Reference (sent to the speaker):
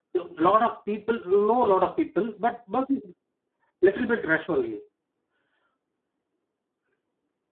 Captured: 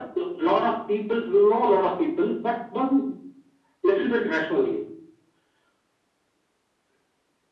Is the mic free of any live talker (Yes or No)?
Yes